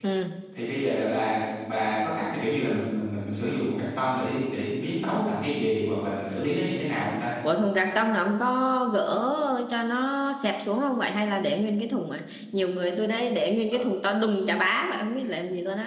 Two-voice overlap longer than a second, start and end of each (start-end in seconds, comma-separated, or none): none